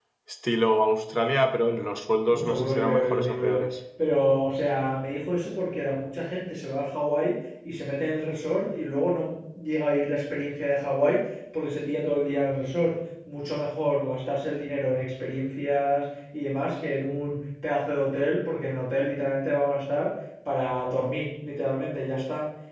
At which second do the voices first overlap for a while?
2 s

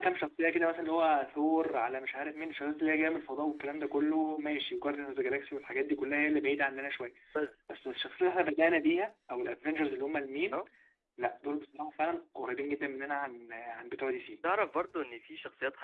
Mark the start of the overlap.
none

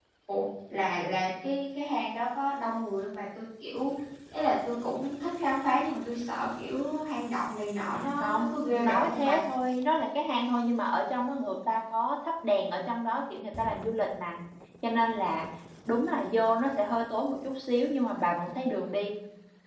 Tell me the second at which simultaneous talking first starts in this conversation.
8 s

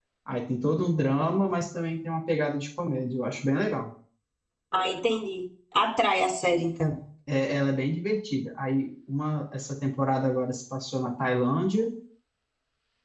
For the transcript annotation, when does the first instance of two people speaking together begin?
none

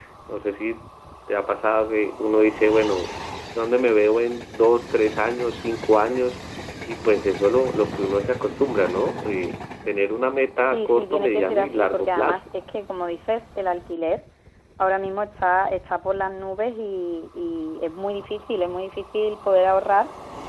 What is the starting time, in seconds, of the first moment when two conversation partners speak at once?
11 s

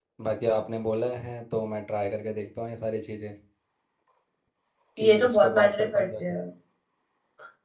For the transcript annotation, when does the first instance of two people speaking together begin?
5 s

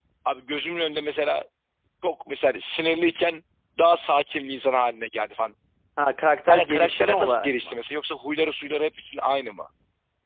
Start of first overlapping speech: 6 s

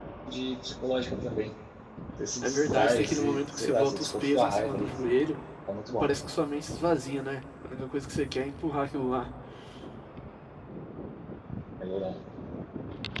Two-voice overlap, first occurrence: 2 s

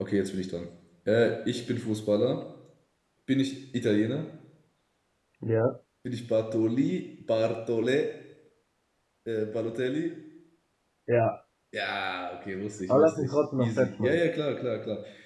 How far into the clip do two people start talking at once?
13 s

